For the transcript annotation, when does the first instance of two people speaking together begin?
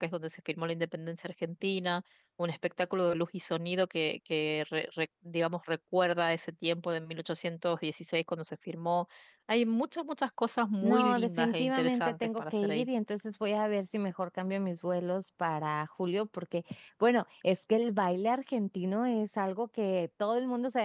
10.8 s

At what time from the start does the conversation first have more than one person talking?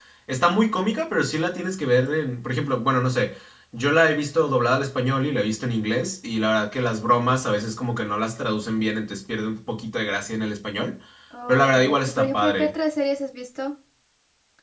11.5 s

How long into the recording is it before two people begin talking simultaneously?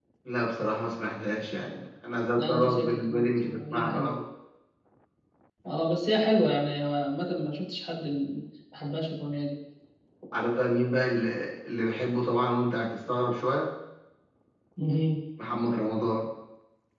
2.4 s

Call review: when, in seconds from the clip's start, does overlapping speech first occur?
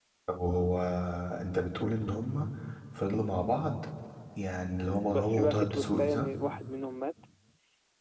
5.0 s

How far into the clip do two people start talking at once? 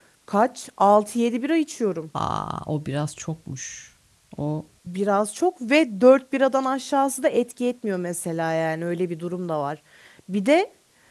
none

